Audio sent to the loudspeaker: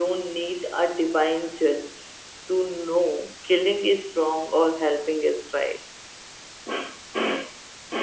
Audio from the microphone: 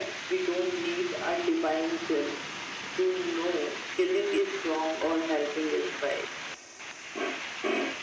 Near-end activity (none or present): none